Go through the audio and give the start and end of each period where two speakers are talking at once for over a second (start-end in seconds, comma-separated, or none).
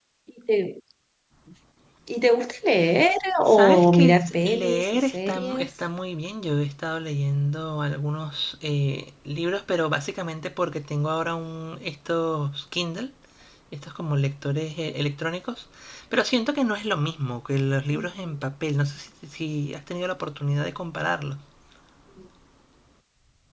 3.5-5.7